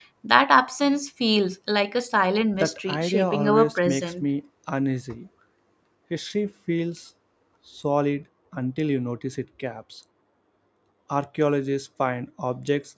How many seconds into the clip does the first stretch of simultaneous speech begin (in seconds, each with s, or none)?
2.5 s